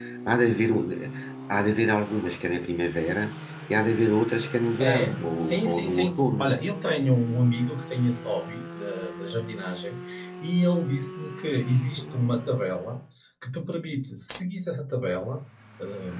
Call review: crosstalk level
present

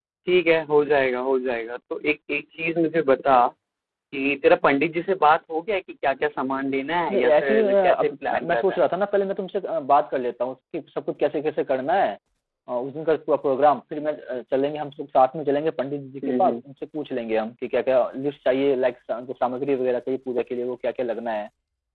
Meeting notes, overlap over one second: present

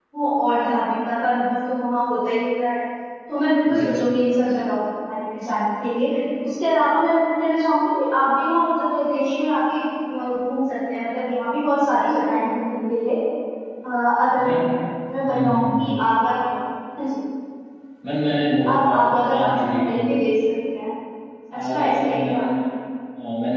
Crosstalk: present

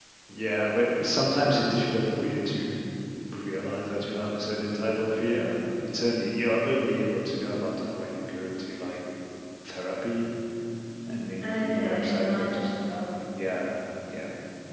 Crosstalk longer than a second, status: present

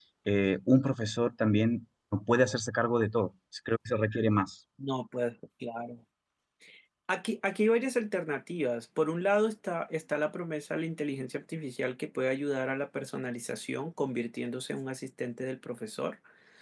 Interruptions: none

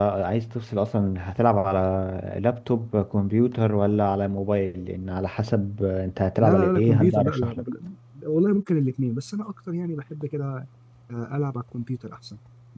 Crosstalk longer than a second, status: present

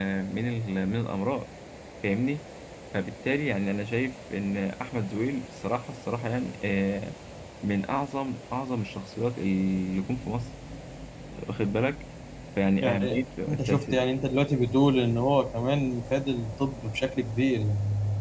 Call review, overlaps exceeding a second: present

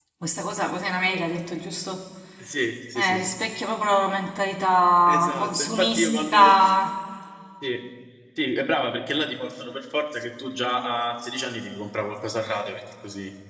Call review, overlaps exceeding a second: present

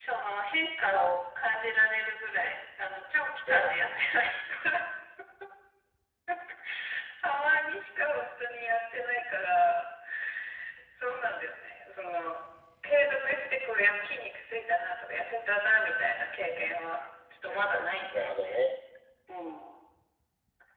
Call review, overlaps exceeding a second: present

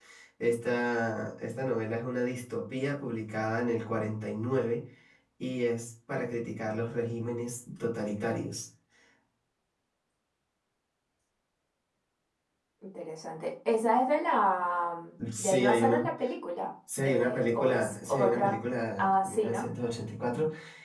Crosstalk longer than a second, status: present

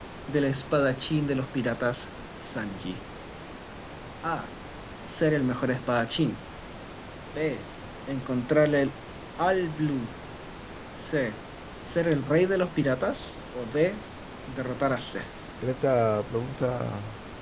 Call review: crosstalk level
none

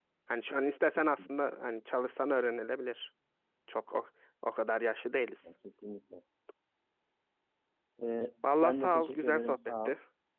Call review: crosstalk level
present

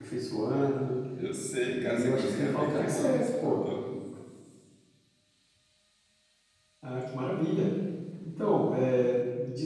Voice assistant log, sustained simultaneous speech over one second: present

